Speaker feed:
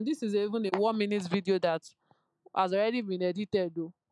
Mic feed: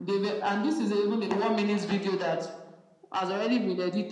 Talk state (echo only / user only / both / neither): echo only